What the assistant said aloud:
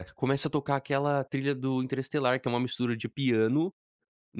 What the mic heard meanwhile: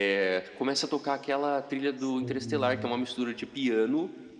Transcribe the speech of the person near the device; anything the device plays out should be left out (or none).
Sim.